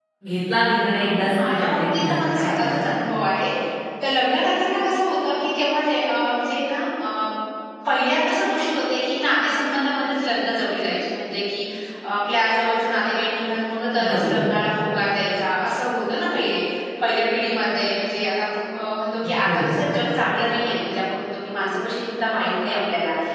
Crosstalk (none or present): present